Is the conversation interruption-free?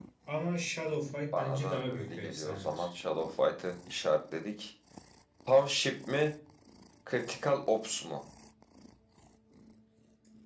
No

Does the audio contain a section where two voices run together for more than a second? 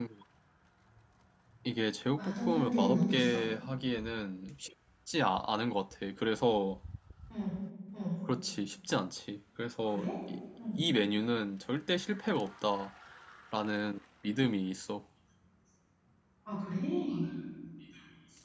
Yes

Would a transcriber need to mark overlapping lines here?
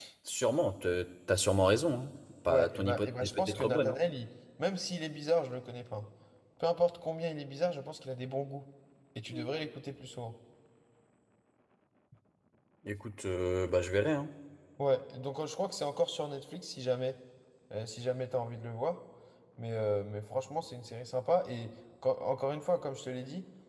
Yes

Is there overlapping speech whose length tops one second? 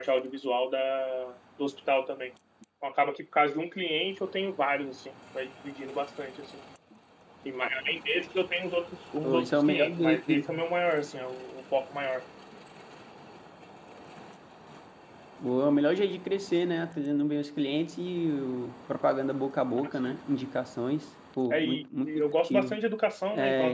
Yes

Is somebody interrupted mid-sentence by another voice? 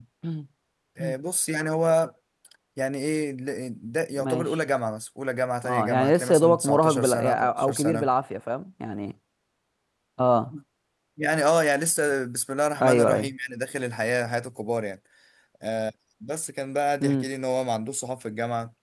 Yes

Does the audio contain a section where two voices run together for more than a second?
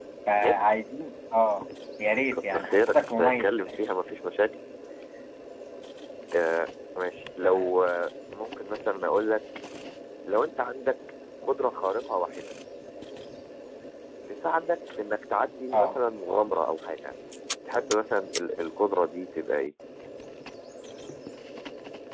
Yes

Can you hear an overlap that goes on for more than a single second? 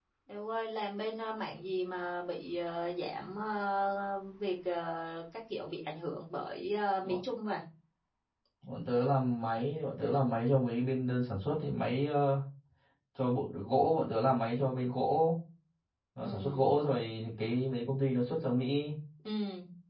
No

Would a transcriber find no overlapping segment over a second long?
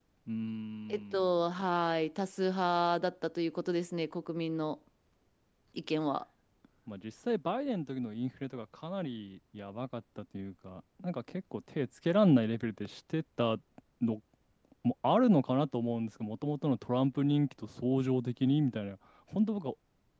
Yes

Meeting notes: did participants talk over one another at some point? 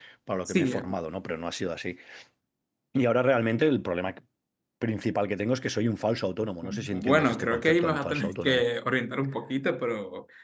Yes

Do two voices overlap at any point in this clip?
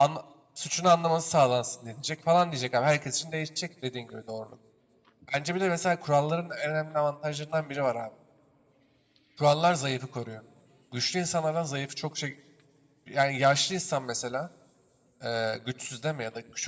No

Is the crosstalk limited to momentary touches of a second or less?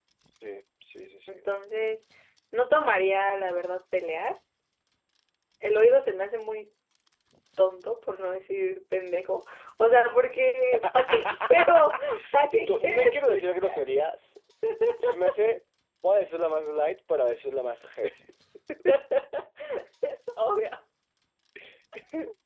No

